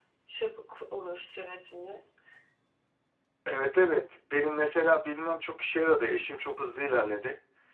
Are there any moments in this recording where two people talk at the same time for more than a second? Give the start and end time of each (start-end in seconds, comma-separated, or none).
none